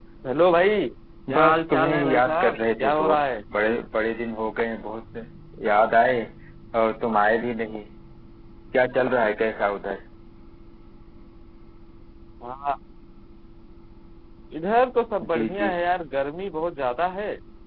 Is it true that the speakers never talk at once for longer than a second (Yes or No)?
No